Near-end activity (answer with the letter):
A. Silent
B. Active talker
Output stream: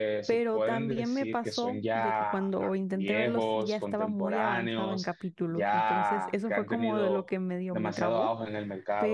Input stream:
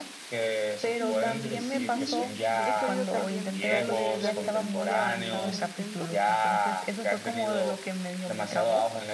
B